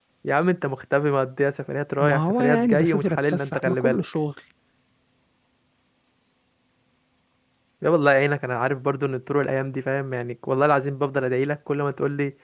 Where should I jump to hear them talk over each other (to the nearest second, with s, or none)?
2 s